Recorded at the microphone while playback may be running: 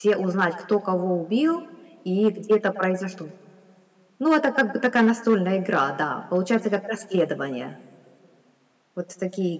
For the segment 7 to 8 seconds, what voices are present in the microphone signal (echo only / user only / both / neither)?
user only